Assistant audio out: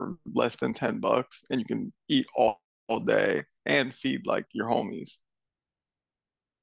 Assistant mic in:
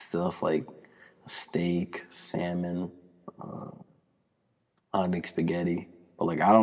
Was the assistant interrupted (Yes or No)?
Yes